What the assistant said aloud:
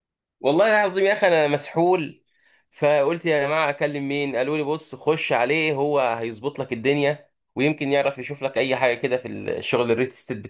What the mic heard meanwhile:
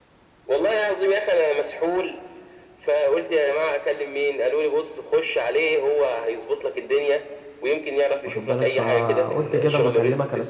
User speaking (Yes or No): Yes